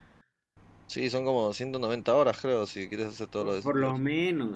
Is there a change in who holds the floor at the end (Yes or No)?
Yes